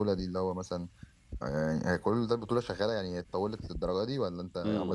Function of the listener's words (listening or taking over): taking over